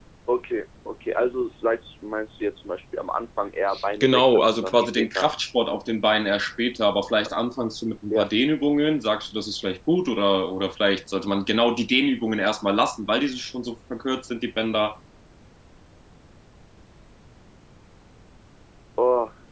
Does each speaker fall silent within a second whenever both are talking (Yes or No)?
No